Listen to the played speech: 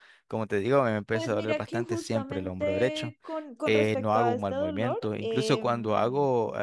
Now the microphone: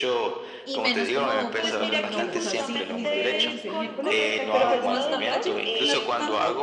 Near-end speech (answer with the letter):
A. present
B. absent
A